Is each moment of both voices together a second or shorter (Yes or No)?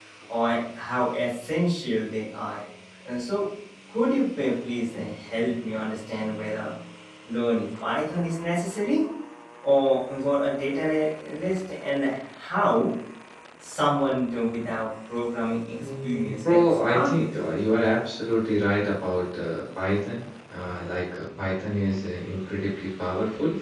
No